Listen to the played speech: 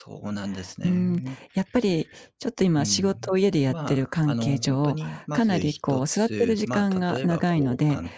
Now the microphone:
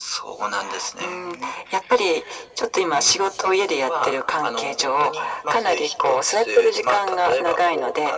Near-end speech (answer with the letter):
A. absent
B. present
A